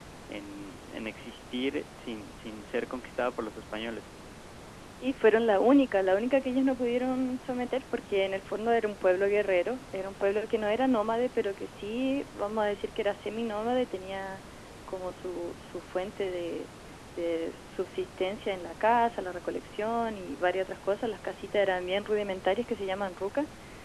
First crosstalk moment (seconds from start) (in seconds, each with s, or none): none